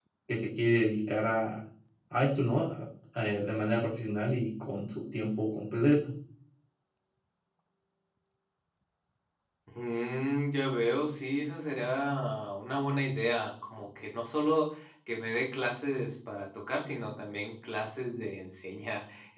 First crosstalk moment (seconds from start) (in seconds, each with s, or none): none